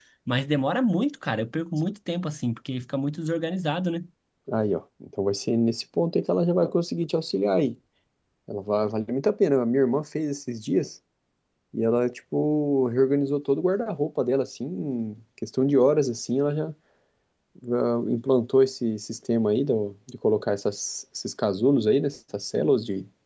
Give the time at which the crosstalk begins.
none

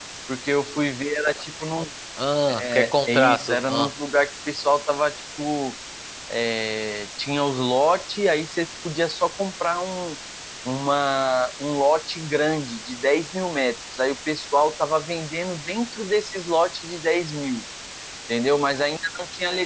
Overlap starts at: 3 s

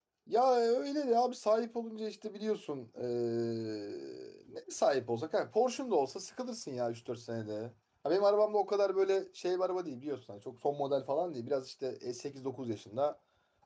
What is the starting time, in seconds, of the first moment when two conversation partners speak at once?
none

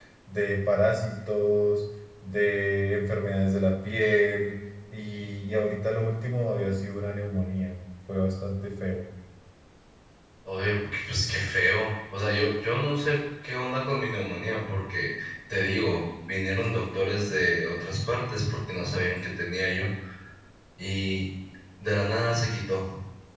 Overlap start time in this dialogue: none

